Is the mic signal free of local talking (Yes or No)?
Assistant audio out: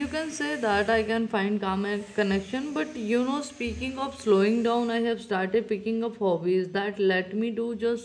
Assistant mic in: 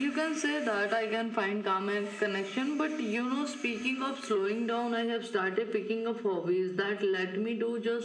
Yes